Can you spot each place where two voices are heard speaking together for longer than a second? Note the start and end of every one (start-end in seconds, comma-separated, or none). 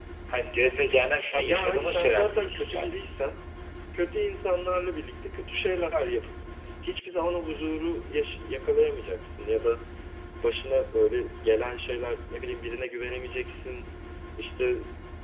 1.4-2.9